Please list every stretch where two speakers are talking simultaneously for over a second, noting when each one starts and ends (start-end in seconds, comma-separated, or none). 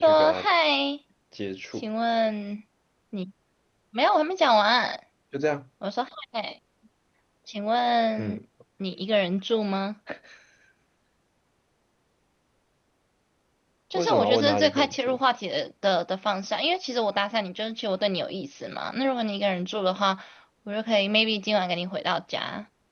13.9-15.2